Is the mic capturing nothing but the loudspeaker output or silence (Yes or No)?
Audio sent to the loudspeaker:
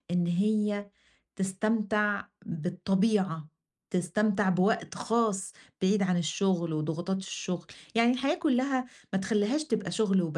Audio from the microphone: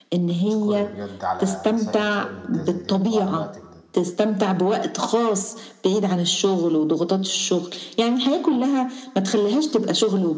No